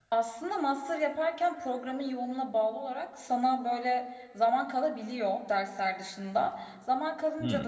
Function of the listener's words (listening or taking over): listening